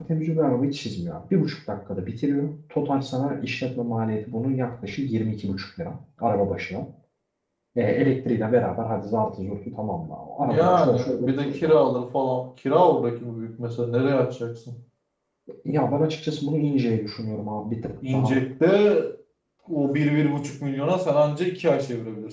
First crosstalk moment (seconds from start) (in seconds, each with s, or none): 10.5 s